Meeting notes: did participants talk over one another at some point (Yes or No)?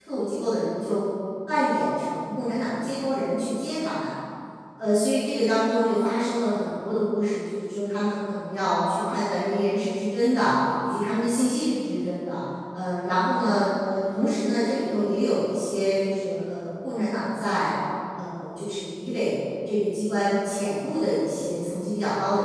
No